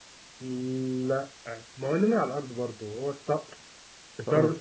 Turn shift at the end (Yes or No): No